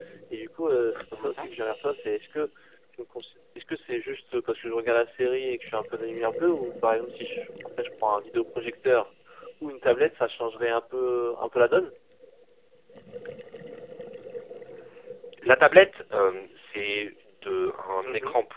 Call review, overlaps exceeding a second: none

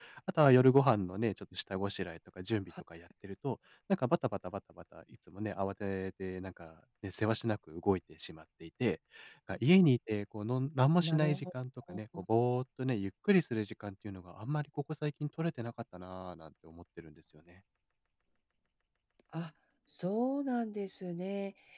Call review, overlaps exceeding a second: none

